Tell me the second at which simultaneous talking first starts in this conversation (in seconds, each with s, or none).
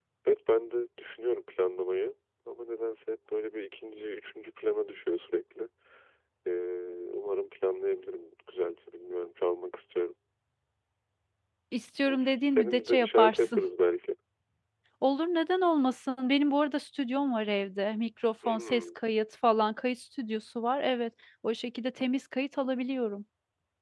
12.1 s